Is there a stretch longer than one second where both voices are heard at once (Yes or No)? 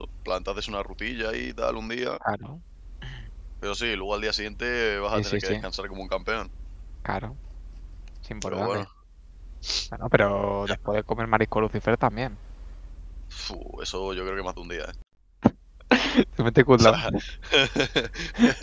No